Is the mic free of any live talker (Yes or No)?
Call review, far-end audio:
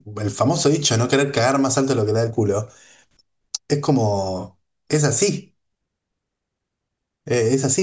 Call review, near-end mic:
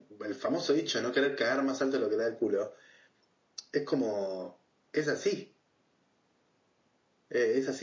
Yes